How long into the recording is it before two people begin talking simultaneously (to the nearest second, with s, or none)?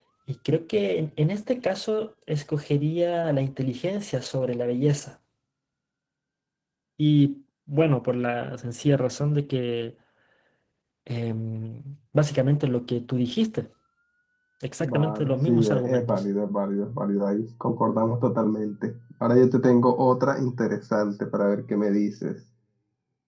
15 s